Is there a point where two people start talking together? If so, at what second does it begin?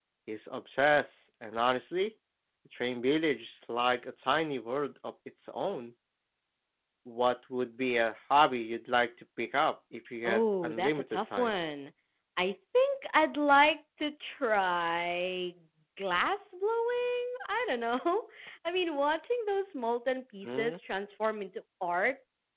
10.2 s

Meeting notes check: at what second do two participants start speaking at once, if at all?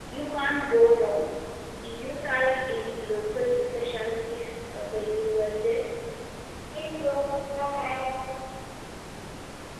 none

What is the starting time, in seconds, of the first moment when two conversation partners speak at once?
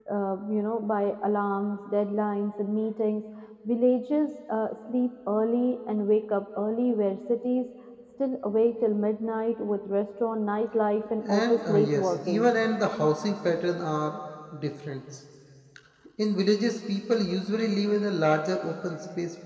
11.2 s

